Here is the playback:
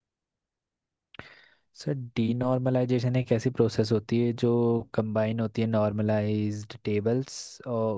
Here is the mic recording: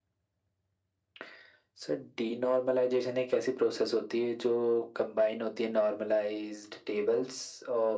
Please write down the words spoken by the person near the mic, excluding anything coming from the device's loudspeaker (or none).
none